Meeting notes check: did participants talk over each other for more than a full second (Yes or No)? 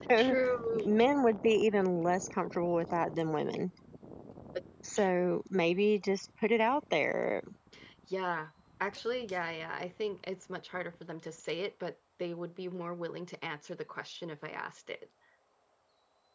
No